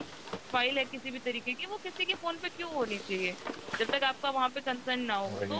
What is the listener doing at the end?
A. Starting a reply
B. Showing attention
B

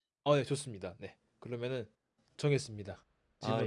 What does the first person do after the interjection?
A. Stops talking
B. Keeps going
A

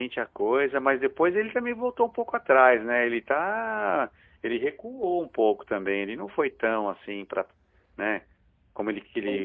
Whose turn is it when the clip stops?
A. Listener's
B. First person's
B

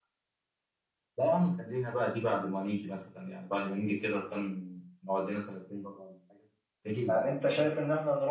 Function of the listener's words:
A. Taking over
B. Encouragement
A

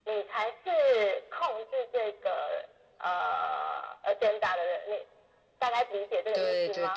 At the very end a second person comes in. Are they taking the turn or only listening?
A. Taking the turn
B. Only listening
A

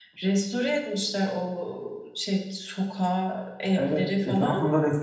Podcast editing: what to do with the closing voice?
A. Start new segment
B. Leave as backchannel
A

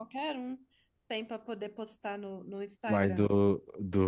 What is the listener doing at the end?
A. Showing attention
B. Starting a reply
B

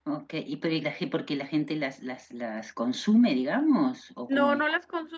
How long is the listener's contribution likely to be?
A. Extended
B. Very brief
A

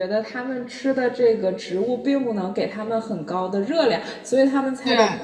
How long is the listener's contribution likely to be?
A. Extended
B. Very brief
B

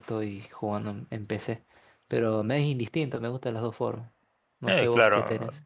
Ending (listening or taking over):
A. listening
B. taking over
B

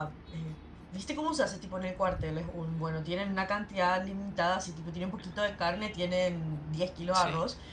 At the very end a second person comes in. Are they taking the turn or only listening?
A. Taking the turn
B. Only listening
B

